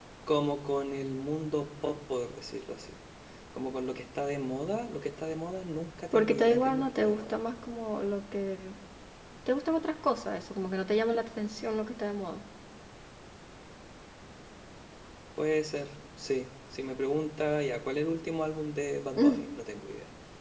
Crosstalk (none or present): present